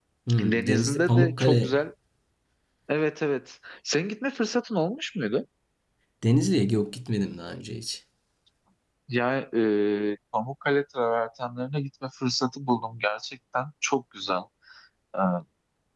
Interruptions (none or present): present